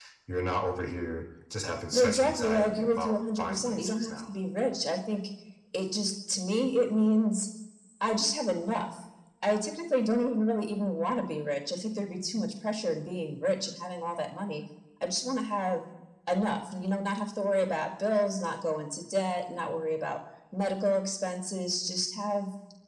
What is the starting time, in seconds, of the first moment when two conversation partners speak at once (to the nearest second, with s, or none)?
2 s